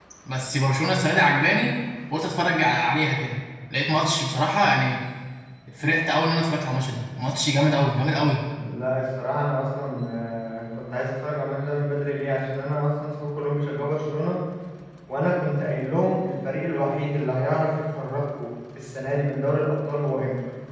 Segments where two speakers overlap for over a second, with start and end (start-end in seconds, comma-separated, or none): none